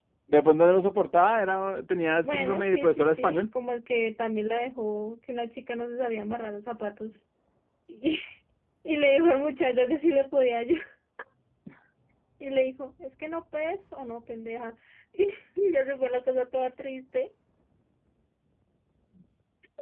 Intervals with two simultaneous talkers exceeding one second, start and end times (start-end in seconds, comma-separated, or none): 2.2-3.4